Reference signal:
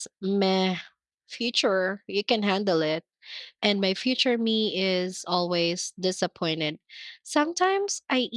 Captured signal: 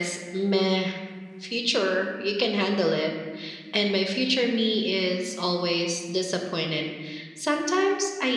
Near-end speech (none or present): none